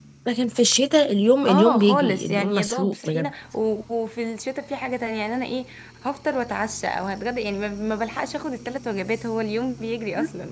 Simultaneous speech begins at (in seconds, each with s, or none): 1.5 s